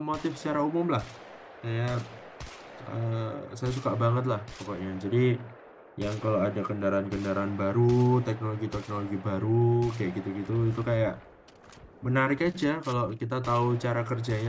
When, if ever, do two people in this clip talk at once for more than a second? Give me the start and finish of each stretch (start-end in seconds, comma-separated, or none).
none